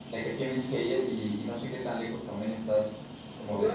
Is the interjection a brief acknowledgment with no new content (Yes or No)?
No